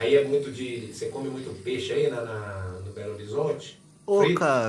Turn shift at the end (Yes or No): Yes